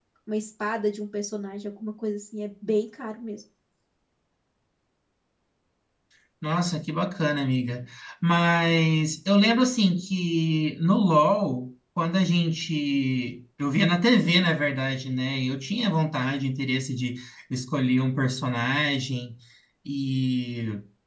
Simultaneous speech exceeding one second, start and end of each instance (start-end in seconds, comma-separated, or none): none